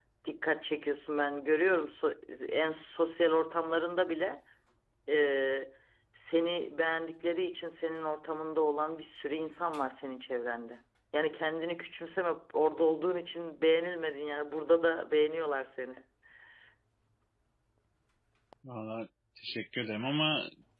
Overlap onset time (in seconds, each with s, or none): none